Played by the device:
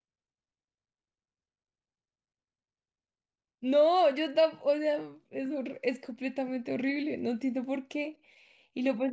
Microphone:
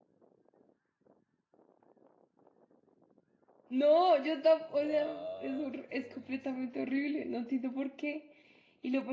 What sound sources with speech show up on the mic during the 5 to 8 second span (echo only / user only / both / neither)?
both